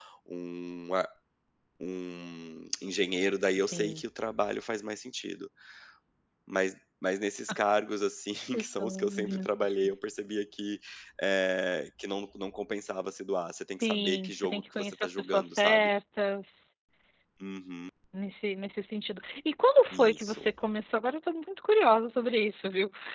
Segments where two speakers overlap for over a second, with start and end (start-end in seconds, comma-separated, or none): 8.5-9.7, 13.8-15.9